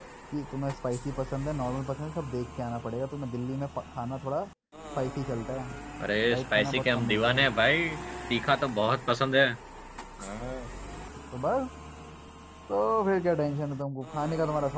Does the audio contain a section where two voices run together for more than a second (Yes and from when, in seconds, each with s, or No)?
Yes, from 6.3 s